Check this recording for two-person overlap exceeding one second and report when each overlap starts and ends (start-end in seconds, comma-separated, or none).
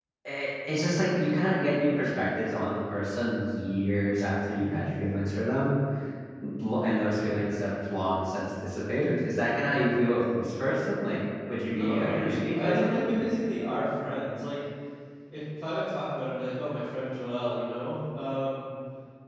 11.7-13.1